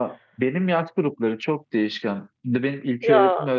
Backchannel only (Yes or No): Yes